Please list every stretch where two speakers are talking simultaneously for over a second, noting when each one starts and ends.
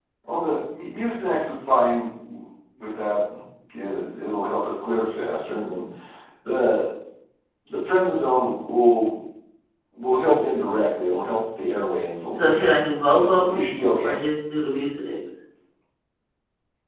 12.3-13.6

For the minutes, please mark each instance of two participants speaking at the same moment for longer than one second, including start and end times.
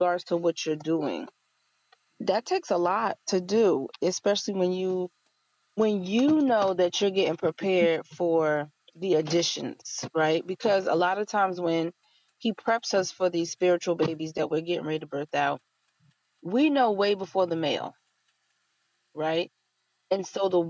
none

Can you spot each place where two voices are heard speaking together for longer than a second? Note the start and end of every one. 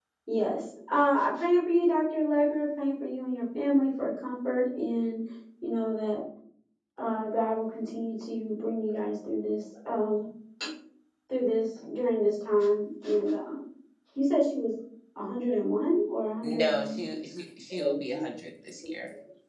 none

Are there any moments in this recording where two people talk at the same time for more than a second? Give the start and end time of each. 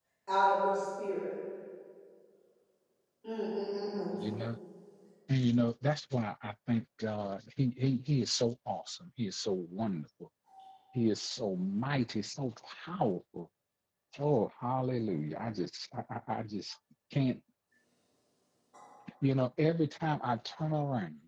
none

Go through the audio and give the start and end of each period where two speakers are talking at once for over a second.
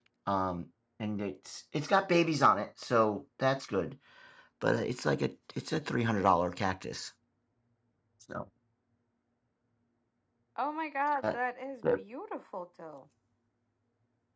none

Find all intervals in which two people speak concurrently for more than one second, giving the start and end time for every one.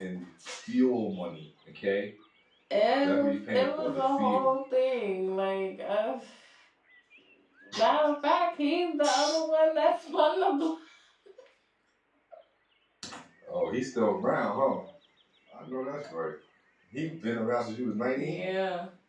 3.1-4.5

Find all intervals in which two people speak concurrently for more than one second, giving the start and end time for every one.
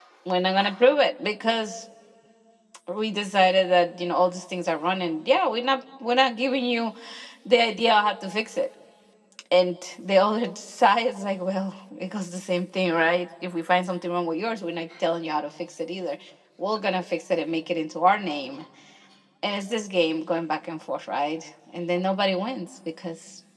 none

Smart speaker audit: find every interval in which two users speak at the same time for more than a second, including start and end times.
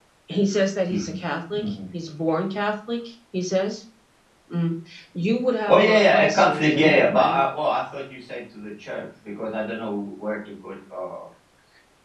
5.7-7.4

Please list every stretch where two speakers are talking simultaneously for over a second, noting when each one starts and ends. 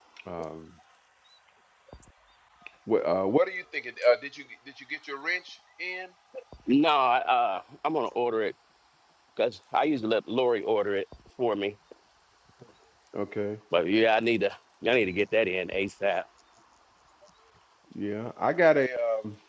none

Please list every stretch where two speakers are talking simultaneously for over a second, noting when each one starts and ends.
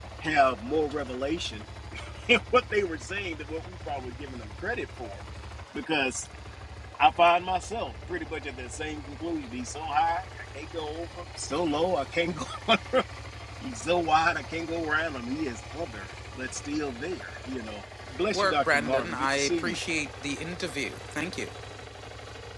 18.3-19.8

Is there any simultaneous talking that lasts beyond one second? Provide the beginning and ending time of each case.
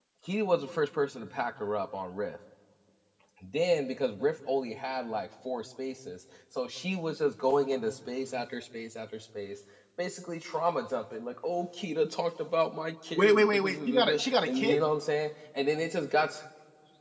13.2-14.8

